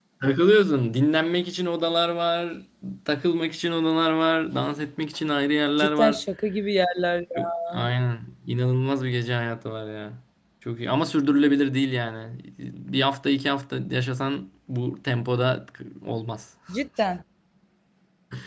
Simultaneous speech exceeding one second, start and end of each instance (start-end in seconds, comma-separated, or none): none